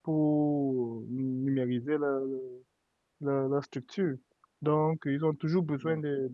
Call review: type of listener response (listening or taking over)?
listening